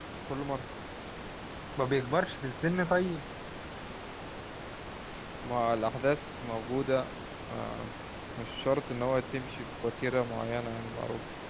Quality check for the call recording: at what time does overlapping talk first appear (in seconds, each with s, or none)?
none